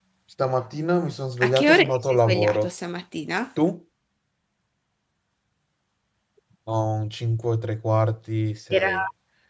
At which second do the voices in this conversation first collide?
1 s

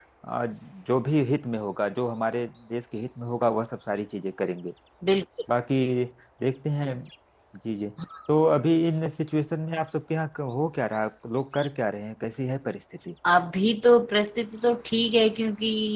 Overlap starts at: none

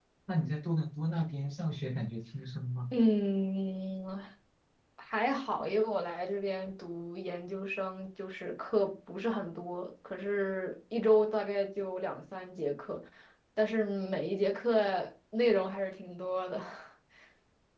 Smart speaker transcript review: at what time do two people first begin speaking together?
none

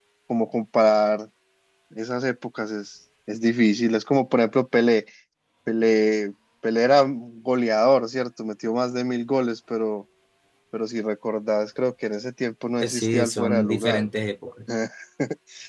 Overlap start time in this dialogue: 13 s

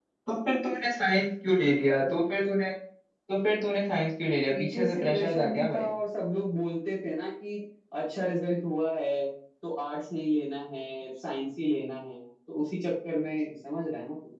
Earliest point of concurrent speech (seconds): 5 s

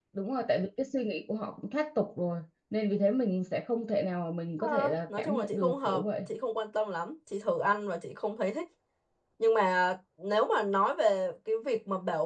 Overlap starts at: 5 s

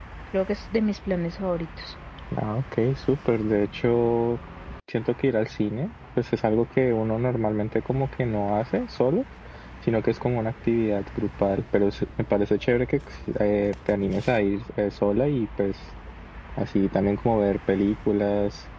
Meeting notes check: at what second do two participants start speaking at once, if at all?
none

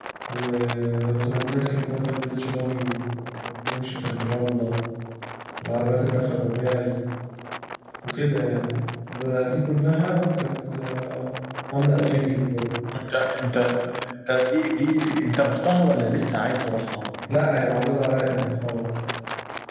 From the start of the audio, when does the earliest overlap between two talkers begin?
none

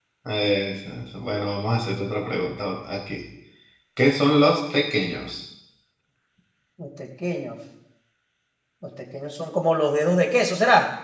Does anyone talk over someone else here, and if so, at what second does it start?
none

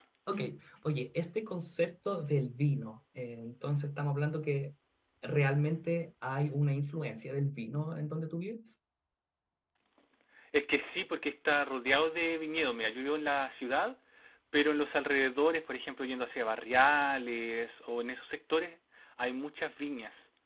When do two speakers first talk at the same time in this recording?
none

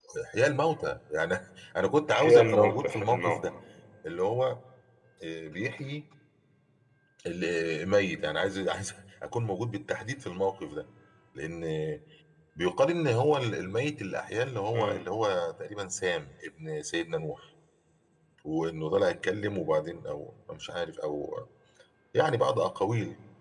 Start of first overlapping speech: 2 s

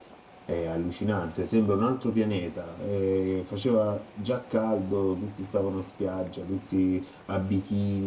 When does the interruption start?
none

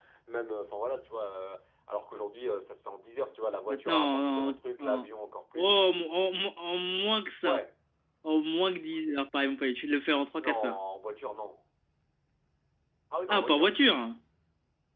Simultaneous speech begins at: 4 s

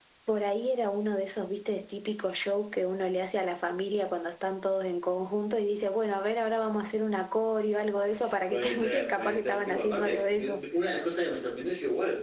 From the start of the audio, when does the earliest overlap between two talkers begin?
9 s

